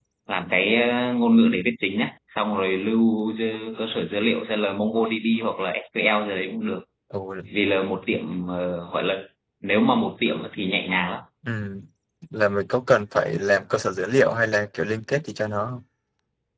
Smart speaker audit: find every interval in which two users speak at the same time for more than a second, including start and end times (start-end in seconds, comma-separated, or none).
none